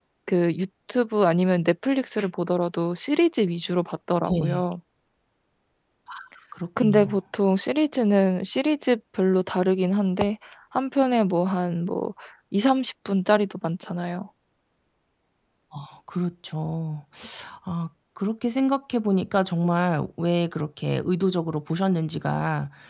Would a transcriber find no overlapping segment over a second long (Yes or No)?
Yes